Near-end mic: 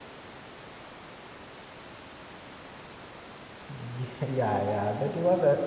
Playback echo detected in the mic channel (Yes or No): No